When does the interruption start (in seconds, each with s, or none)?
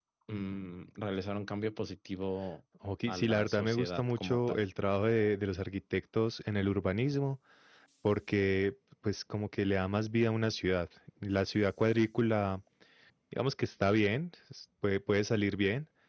3.1 s